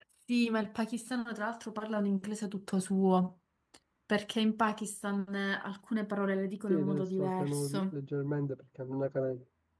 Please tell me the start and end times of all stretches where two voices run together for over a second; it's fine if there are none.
6.7-7.9

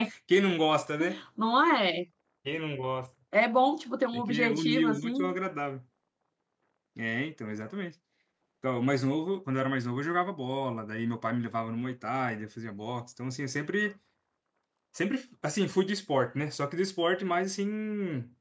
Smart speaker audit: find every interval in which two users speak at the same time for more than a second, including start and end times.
4.1-5.3

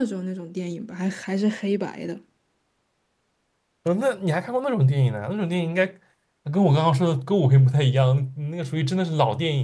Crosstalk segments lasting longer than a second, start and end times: none

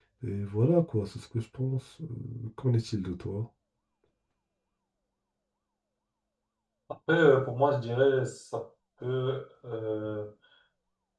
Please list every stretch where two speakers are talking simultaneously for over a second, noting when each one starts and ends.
none

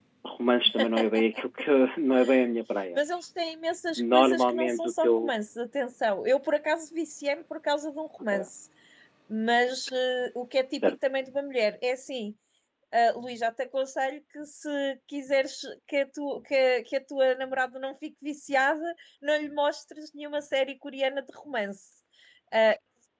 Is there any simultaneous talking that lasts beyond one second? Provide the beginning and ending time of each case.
4.0-5.3

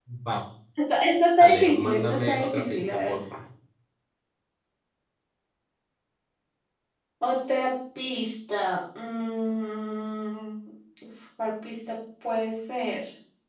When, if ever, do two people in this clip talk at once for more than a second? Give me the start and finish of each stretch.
1.4-3.2

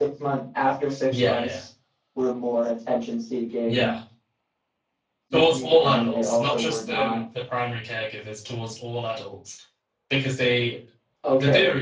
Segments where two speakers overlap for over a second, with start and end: 5.3-7.2

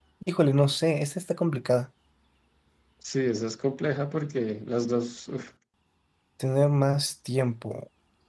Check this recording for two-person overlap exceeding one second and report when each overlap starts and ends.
none

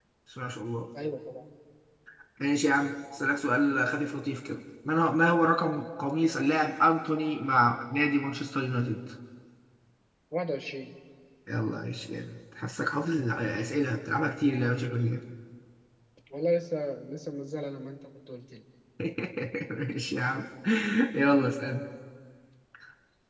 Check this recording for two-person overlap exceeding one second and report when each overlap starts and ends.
none

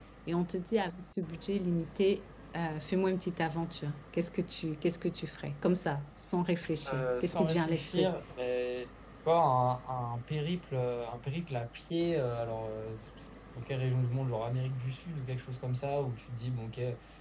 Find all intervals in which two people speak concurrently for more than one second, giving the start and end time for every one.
6.9-8.1

